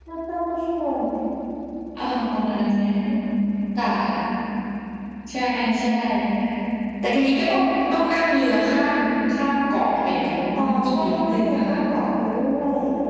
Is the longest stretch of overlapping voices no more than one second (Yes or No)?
No